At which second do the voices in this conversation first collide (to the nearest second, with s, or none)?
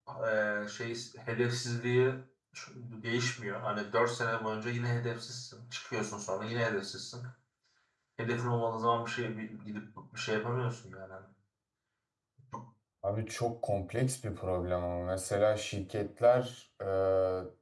none